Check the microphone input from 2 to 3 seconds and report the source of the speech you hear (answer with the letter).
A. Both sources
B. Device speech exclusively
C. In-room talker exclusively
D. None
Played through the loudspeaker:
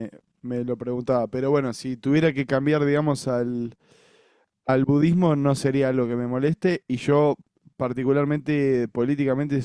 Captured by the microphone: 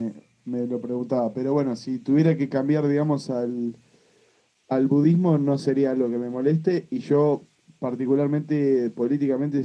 B